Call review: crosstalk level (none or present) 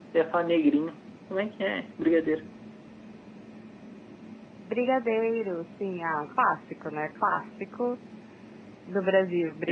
none